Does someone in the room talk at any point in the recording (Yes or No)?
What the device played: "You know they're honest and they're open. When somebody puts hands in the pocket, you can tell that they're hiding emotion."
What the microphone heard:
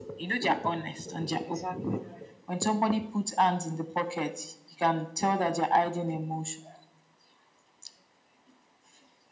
Yes